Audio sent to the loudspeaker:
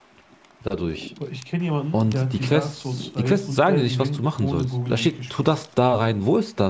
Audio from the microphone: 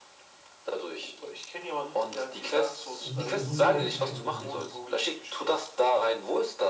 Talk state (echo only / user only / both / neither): both